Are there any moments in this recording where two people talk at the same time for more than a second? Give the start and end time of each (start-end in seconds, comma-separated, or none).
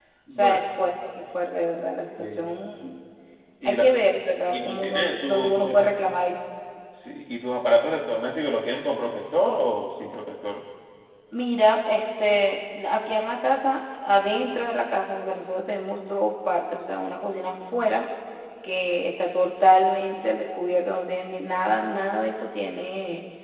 4.5-5.9